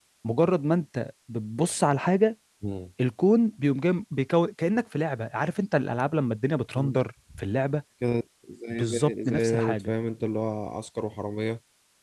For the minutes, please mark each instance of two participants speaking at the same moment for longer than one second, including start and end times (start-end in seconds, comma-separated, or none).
8.7-9.9